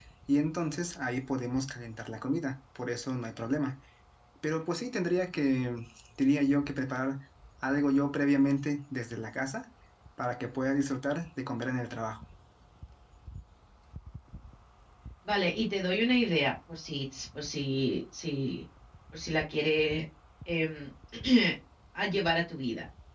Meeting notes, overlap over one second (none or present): none